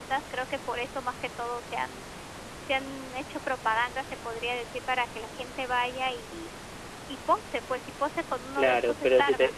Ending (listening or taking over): taking over